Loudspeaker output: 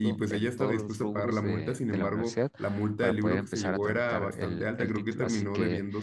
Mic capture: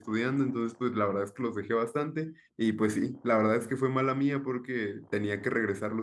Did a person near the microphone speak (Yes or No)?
Yes